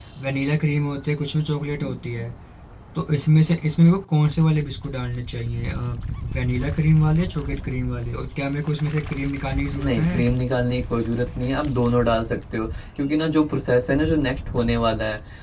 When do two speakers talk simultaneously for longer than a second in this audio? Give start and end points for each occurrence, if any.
none

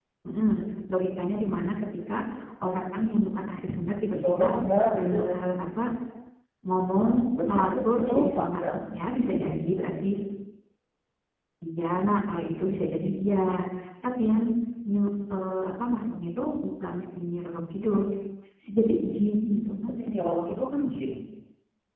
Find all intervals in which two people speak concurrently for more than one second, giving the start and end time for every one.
7.5-8.8

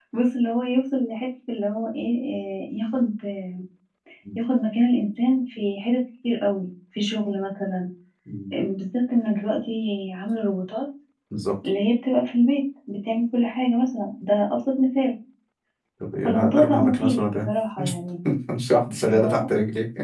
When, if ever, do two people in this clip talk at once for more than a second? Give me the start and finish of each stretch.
16.2-17.5

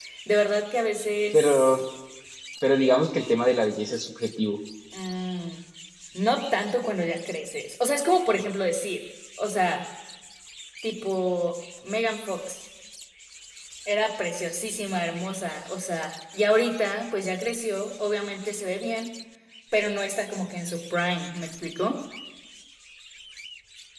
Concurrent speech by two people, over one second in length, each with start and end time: none

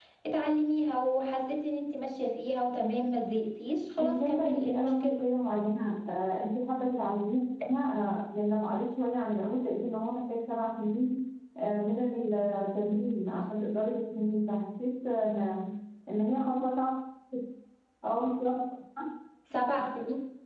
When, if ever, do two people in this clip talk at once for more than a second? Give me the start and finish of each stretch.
4.0-5.2

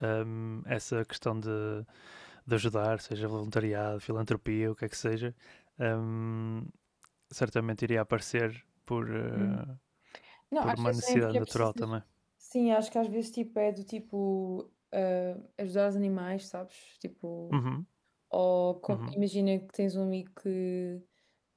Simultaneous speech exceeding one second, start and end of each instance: 10.6-11.8

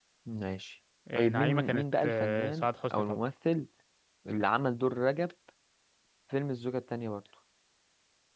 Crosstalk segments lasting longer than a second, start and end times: 1.1-3.2

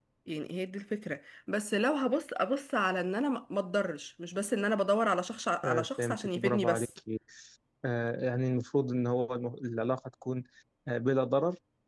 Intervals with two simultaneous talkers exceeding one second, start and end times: 5.6-6.9

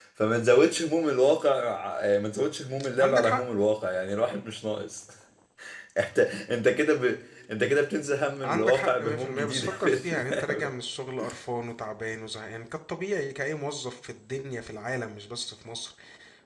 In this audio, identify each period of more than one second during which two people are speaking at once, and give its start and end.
8.4-10.7

